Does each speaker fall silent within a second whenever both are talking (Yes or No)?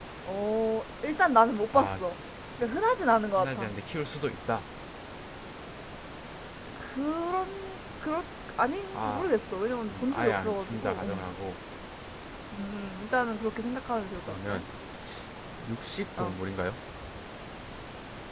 No